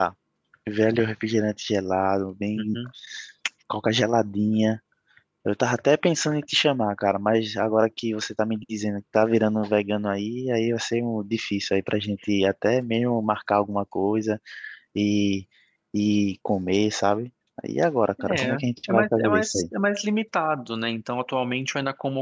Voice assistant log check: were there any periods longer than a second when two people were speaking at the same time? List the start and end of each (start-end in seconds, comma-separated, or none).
18.3-19.6